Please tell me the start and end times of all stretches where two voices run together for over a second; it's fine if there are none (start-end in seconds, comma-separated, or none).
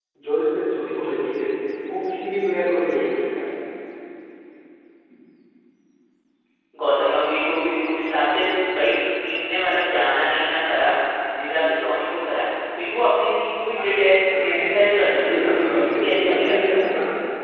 15.2-16.9